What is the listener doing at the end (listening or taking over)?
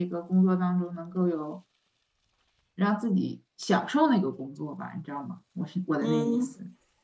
taking over